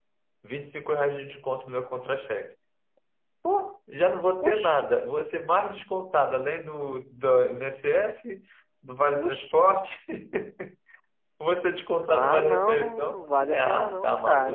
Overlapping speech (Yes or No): Yes